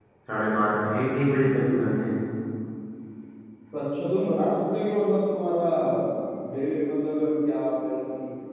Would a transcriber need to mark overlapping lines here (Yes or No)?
No